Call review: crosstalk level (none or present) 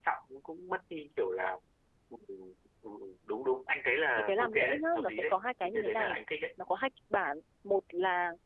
present